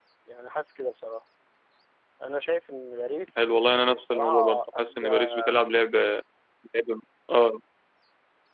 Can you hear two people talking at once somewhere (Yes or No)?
Yes